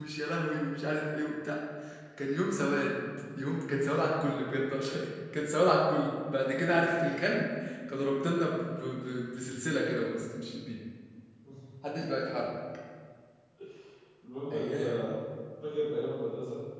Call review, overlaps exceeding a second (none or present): none